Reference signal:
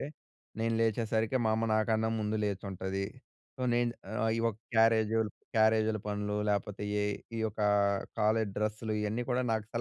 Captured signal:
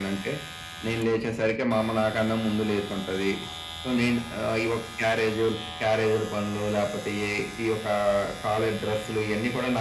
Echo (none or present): present